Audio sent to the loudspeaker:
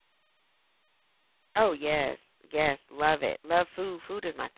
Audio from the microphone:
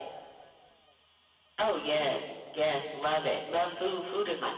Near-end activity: none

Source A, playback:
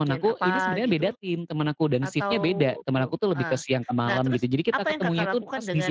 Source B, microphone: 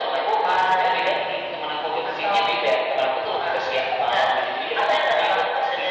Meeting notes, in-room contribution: none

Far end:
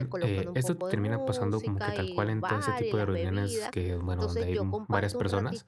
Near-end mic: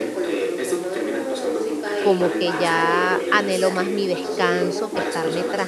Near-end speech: present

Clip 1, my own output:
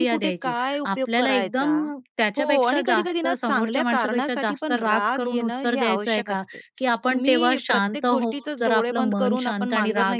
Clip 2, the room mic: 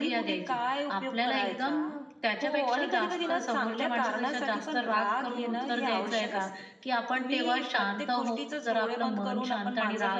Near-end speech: present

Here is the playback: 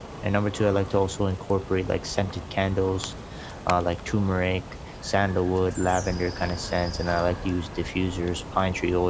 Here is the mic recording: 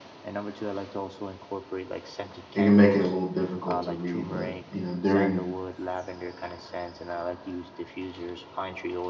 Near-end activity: present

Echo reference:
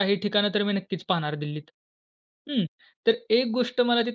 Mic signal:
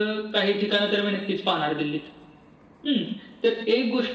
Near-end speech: none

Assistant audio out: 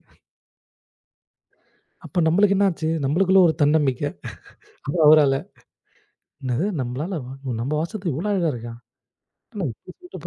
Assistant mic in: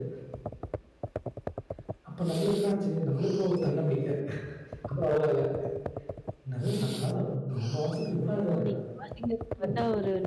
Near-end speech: present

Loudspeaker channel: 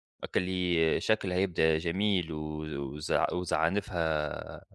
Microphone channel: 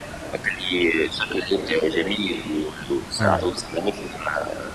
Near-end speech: present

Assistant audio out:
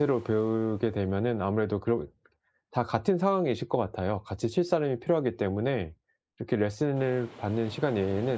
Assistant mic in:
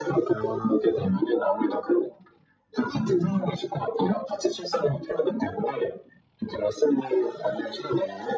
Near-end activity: none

